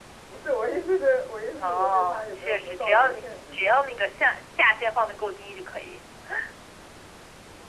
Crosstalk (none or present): present